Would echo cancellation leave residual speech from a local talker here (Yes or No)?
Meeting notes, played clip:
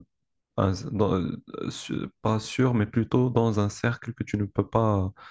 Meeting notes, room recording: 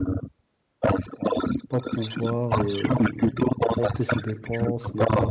Yes